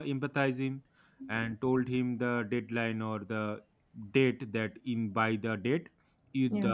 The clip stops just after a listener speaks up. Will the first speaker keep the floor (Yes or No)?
Yes